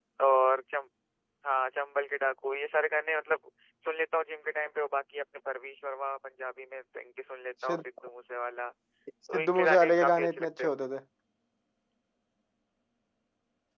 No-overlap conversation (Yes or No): No